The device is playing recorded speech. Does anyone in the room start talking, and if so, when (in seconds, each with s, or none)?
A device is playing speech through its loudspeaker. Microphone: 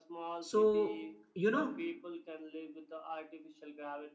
0.4 s